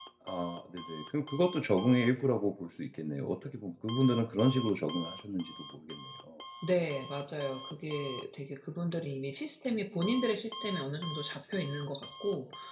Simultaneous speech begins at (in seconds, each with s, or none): none